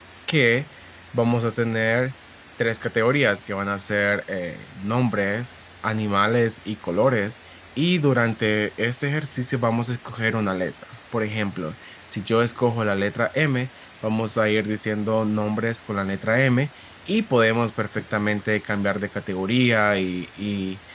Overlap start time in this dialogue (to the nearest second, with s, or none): none